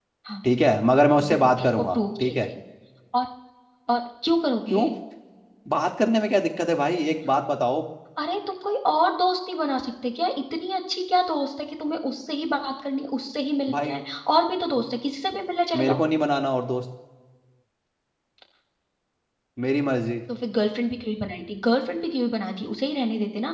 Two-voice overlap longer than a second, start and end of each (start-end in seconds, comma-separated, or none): 1.2-2.5